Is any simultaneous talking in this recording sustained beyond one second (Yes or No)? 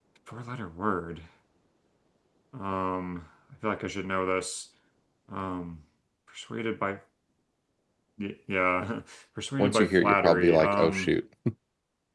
Yes